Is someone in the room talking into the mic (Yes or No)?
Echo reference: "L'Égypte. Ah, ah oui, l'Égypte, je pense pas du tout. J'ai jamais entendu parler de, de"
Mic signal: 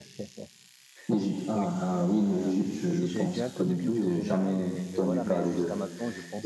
Yes